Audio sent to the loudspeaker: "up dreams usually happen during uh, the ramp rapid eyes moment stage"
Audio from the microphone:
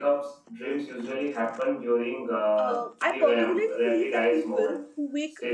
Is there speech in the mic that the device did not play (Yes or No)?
Yes